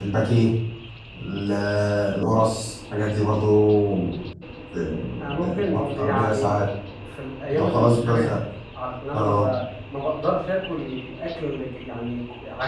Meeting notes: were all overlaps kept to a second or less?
No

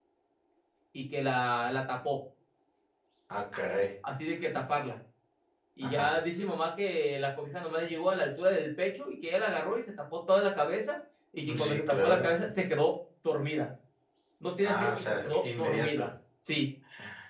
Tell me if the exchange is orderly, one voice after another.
No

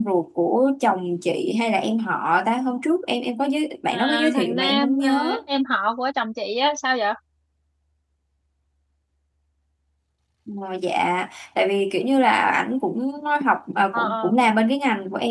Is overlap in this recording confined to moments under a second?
No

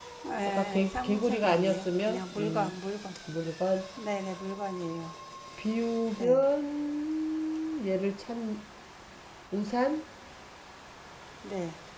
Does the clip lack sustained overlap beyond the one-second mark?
No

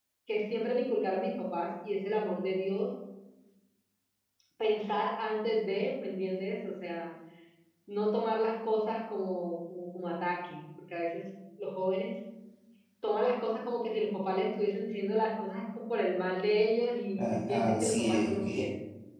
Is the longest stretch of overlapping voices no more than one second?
No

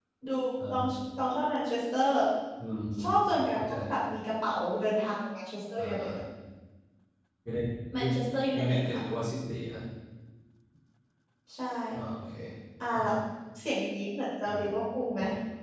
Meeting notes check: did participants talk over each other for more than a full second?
No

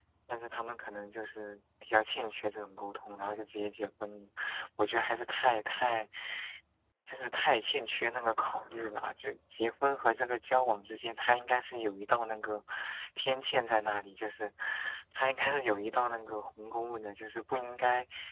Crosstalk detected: No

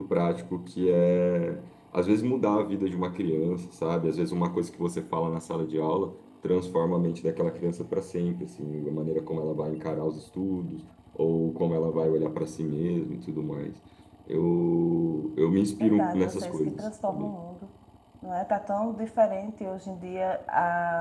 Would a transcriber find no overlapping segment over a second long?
No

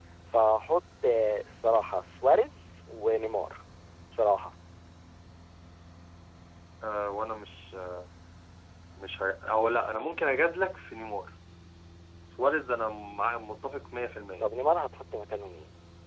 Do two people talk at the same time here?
No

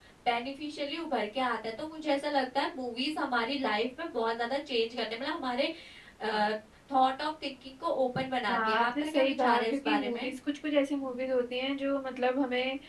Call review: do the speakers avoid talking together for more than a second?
No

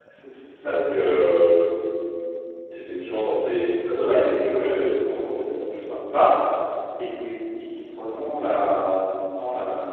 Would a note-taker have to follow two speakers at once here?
Yes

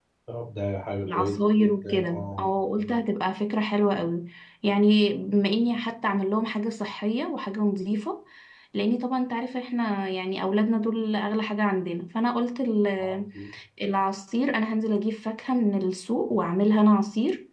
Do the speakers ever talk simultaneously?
Yes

